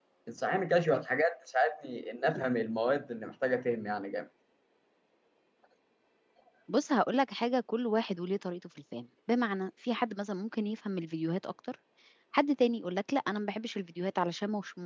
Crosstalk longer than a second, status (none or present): none